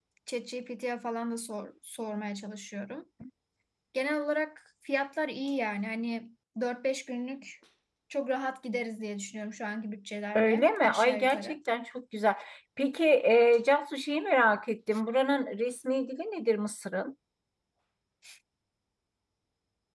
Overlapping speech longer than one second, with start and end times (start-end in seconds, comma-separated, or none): 10.4-11.6